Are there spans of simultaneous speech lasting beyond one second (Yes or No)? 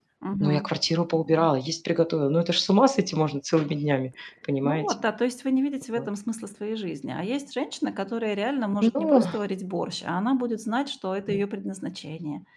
No